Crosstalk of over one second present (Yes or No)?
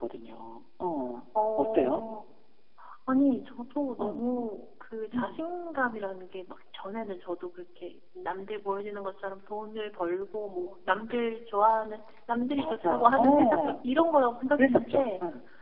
Yes